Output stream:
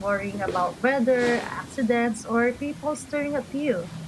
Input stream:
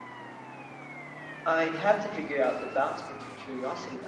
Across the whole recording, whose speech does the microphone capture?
user only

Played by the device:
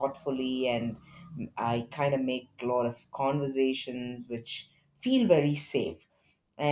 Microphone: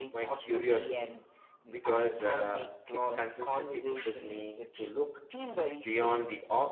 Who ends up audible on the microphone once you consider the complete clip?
both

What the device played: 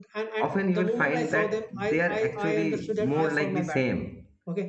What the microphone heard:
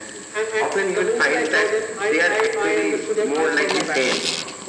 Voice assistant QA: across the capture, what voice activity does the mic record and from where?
echo only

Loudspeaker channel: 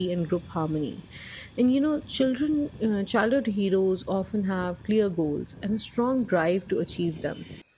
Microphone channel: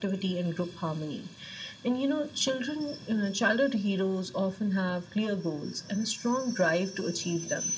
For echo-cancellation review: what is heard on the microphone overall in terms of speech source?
echo only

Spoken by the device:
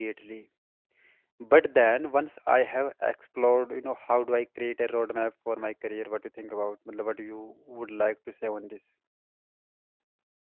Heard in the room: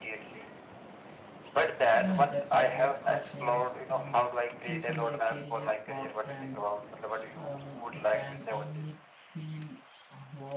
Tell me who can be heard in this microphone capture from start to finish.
both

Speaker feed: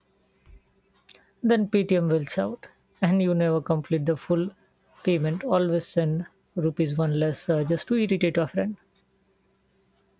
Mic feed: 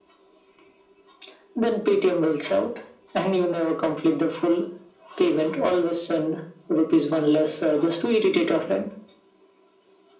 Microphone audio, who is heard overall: echo only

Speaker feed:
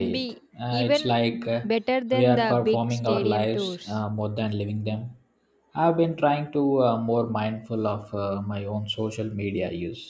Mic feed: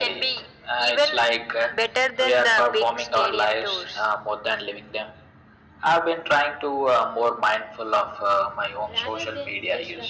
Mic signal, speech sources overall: both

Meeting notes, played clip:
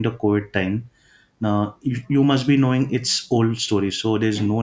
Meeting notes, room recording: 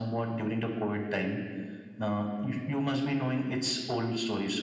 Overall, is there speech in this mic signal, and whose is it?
echo only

